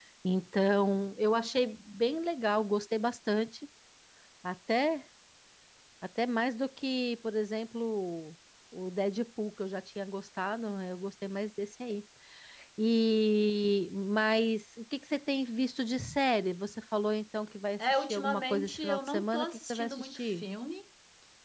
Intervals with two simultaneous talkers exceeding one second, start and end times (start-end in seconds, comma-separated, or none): 17.9-20.4